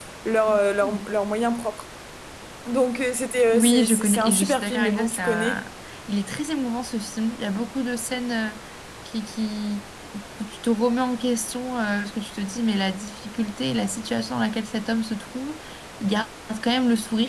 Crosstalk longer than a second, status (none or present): present